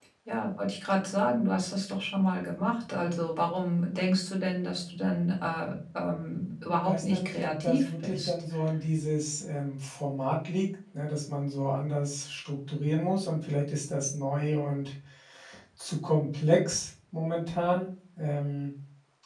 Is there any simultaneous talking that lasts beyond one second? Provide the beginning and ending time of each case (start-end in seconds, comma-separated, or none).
6.8-8.3